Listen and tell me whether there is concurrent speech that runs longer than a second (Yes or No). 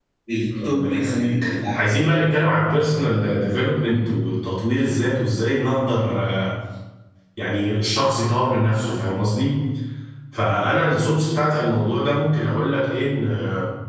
Yes